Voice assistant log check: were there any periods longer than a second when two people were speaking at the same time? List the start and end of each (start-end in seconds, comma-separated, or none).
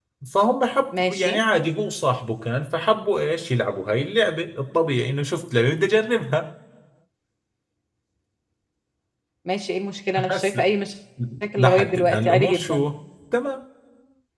11.6-12.9